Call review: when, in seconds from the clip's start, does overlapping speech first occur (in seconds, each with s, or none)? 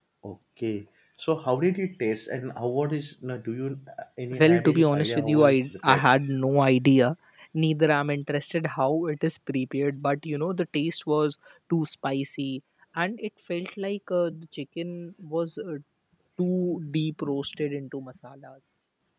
4.3 s